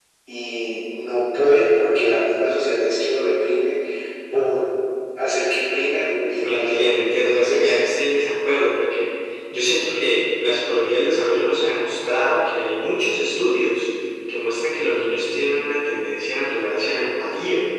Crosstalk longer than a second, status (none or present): present